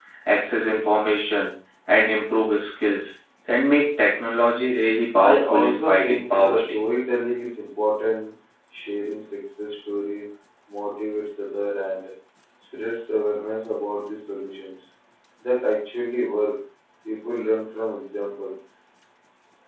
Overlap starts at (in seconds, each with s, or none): 5.2 s